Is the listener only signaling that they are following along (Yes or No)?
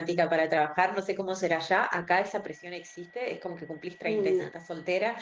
Yes